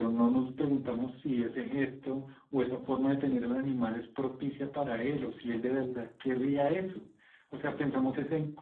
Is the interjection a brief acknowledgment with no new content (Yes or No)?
Yes